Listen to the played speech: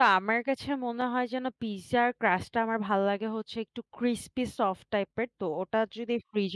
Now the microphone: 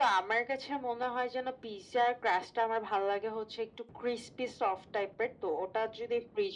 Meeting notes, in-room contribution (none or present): none